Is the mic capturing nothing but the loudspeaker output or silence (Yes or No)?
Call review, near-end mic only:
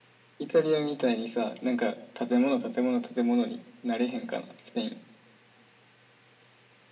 Yes